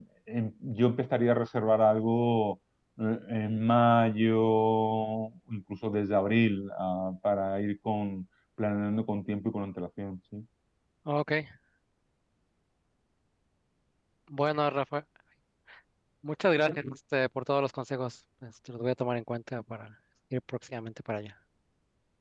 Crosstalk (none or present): none